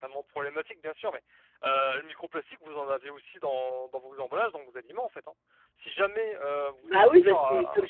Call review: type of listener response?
taking over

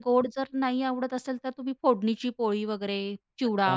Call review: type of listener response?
taking over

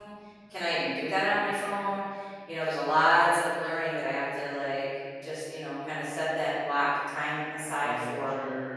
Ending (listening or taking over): taking over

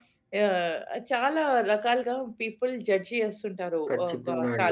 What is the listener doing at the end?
listening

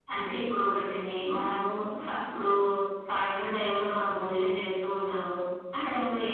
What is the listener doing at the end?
listening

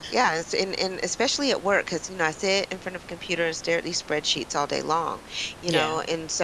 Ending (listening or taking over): listening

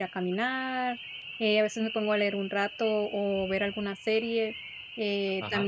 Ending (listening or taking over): listening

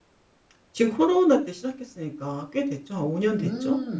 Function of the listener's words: taking over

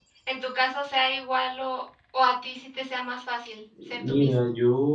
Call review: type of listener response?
taking over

